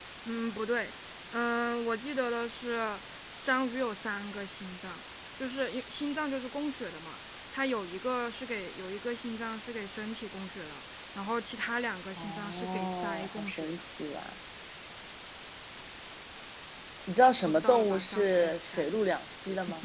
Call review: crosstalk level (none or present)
present